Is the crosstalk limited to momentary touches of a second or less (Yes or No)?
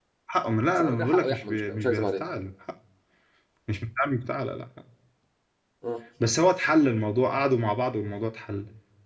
No